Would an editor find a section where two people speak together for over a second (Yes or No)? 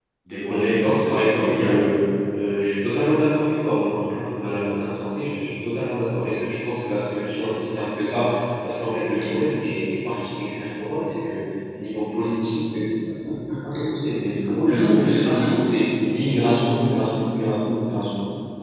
Yes